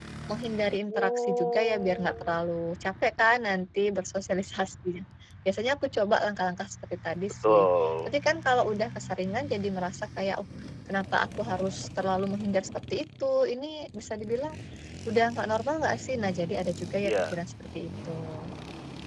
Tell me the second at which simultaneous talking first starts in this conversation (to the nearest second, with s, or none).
1 s